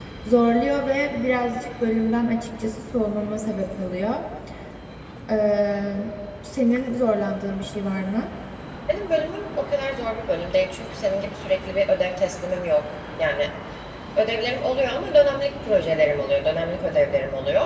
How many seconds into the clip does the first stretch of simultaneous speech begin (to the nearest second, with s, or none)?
none